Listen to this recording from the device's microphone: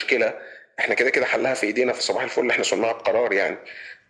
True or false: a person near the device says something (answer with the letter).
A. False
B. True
A